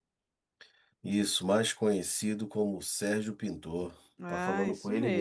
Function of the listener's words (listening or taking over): taking over